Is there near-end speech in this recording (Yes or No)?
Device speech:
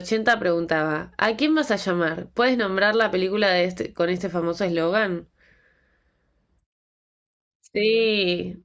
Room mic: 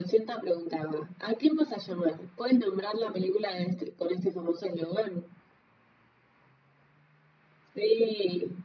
No